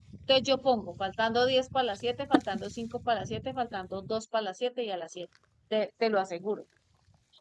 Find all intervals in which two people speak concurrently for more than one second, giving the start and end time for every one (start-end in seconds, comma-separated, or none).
none